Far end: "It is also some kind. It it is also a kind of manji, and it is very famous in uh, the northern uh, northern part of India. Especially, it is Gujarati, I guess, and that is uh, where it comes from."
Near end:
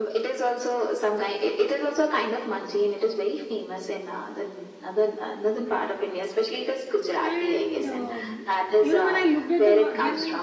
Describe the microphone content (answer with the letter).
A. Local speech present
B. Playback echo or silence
A